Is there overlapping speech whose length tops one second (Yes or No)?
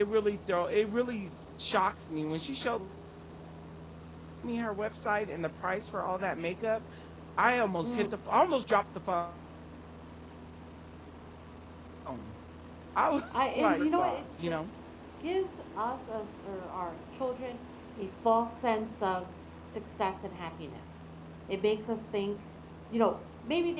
Yes